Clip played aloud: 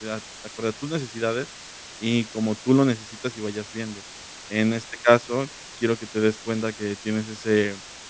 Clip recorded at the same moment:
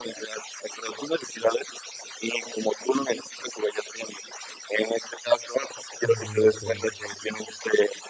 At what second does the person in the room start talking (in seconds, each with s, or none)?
6.0 s